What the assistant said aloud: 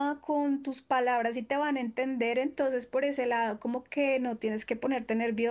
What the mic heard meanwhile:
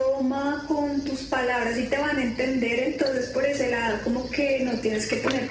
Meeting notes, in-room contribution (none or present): none